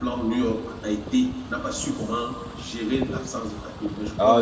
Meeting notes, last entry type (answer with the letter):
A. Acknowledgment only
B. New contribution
B